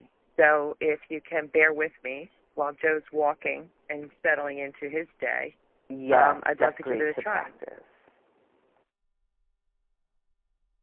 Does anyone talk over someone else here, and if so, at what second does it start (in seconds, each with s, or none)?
6.1 s